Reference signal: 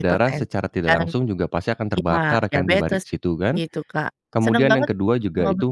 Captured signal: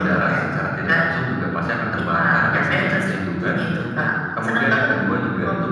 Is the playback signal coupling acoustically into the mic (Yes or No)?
Yes